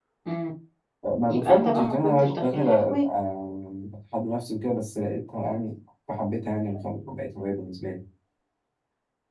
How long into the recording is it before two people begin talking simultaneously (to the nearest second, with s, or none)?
1 s